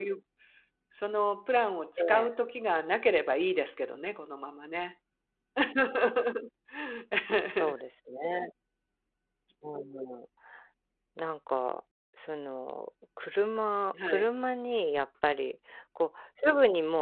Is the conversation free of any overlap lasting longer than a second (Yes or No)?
Yes